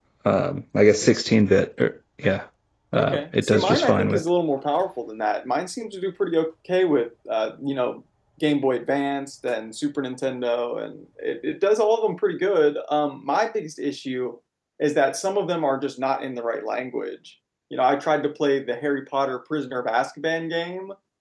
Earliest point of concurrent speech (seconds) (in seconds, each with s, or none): 2.9 s